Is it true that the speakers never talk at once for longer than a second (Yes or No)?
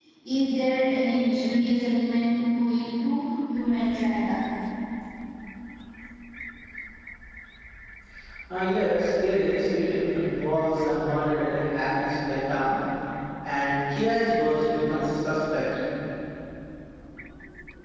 Yes